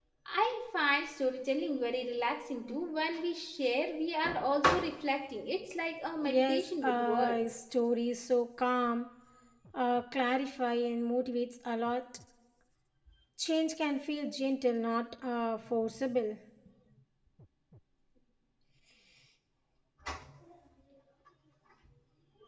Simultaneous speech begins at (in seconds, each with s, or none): 6.2 s